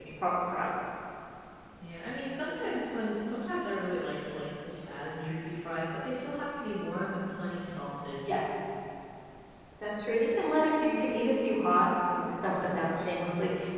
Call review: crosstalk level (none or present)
none